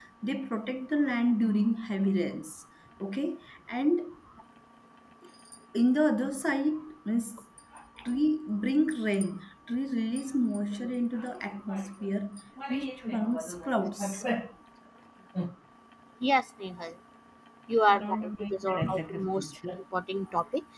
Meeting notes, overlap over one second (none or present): present